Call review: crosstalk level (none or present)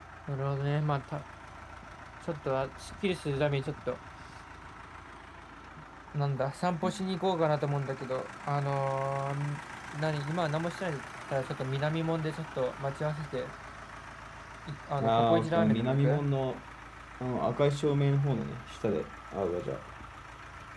present